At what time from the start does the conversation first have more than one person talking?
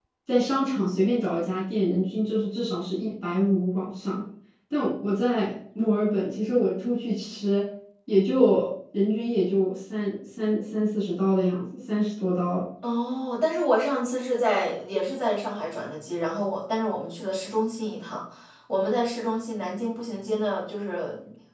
none

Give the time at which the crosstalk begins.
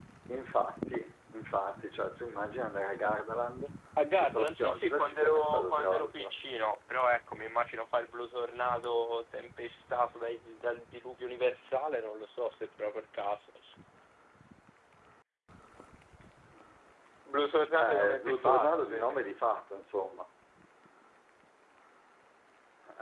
4.2 s

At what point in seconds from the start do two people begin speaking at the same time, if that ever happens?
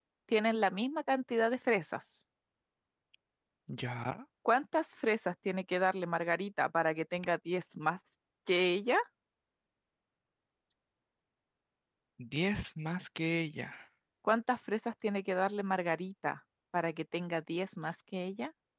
none

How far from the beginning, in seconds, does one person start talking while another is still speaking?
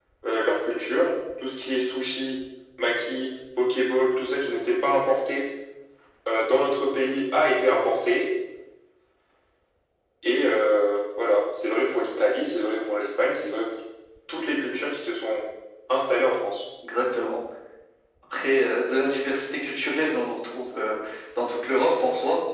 none

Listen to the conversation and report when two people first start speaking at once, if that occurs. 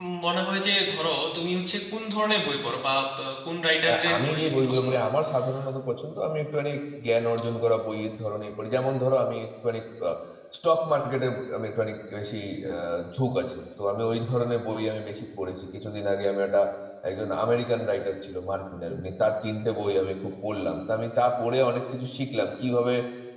3.9 s

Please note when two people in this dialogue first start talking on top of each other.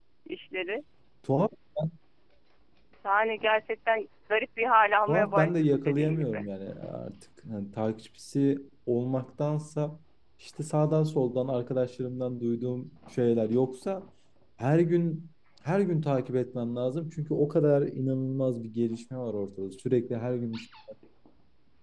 5.1 s

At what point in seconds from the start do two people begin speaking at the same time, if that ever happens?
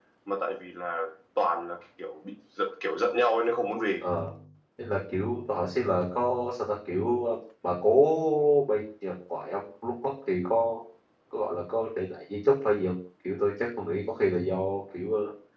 none

